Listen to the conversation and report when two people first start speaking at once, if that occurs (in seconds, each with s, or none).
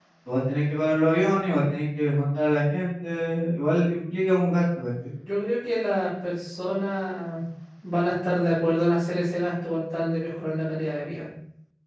none